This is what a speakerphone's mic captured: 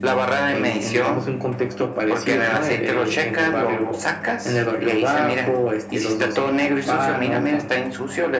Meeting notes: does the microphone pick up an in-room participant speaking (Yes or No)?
No